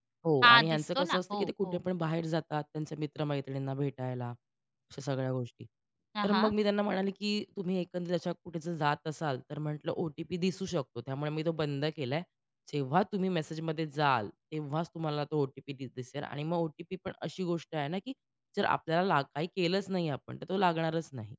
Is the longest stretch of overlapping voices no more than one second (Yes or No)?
No